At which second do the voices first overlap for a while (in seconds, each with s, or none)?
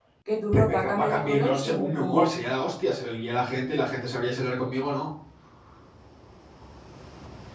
0.5 s